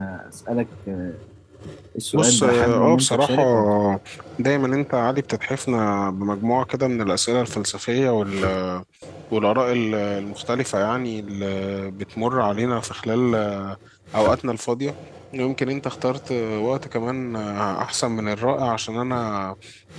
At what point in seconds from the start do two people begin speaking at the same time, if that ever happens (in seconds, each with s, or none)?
2.1 s